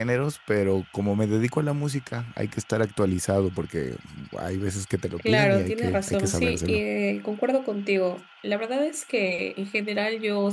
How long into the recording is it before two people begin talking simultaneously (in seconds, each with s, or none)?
5.2 s